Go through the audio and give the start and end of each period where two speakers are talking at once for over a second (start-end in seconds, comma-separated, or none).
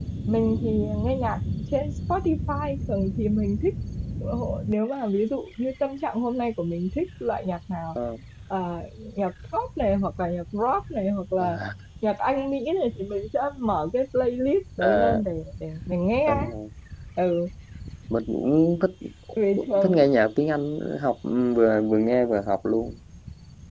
none